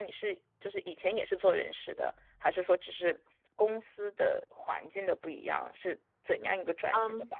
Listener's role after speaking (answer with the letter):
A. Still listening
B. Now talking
B